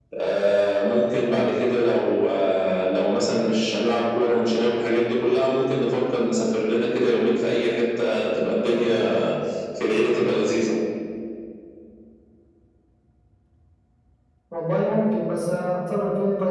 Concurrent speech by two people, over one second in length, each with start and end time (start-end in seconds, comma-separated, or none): none